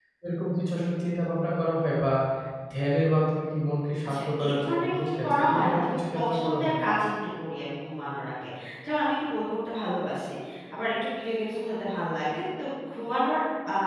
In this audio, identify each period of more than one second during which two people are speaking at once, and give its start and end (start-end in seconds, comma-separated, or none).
4.1-6.7